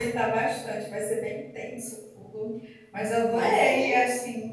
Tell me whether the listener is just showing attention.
Yes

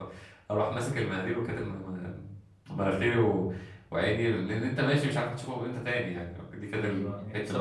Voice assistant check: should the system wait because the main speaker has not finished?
No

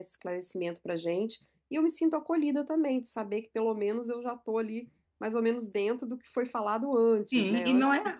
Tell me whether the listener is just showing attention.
No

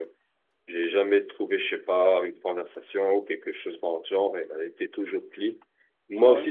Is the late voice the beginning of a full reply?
No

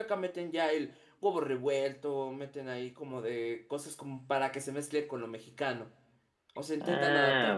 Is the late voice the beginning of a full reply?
Yes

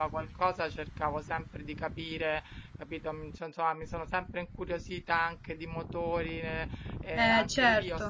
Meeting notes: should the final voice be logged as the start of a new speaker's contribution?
No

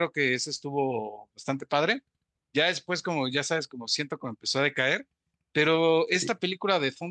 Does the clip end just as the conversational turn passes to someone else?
No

